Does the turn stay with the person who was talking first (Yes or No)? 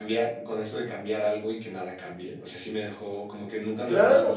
No